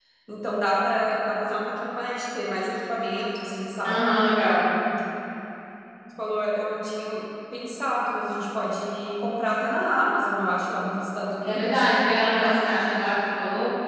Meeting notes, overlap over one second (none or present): none